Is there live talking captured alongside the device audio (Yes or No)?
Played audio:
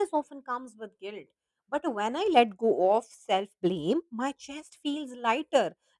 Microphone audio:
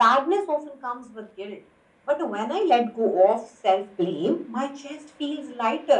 No